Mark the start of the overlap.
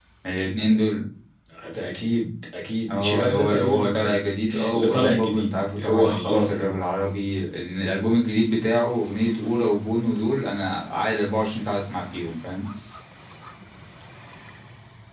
2.9 s

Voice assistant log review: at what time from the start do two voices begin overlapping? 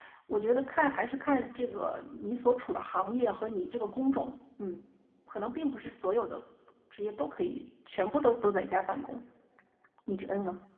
none

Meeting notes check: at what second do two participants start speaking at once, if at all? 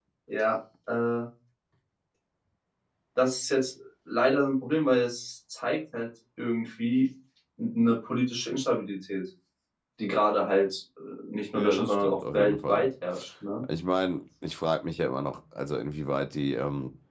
11.6 s

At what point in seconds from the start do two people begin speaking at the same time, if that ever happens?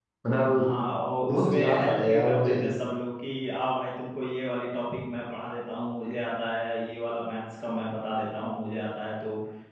1.3 s

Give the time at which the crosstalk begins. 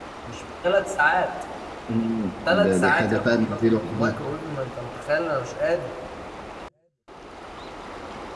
2.5 s

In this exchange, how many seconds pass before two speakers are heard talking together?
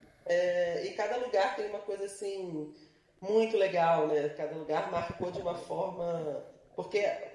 none

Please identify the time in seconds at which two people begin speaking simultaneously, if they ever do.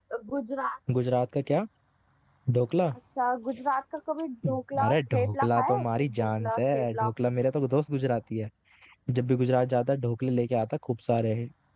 4.4 s

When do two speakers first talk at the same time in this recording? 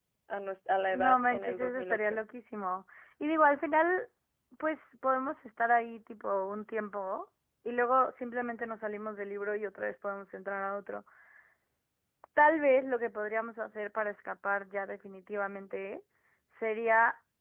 0.9 s

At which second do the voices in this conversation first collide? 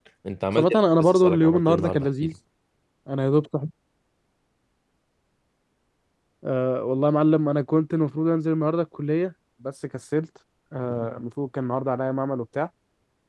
0.6 s

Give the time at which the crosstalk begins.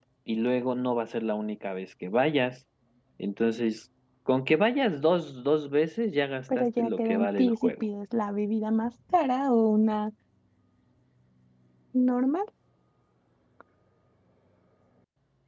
6.5 s

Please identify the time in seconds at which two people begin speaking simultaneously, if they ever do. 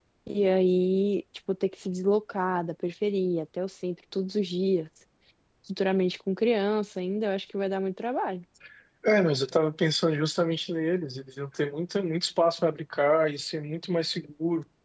none

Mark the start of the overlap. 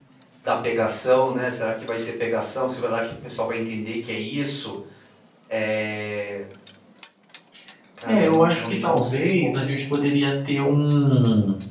8.1 s

